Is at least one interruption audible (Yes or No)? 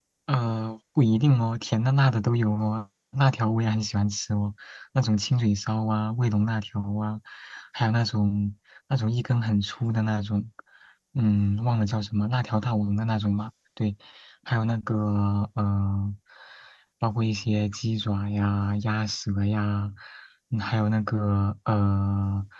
No